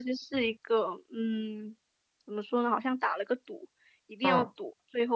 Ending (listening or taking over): listening